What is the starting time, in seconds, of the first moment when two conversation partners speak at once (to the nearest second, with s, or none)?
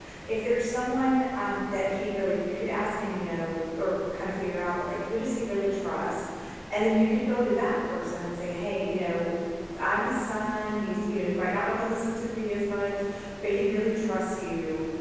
none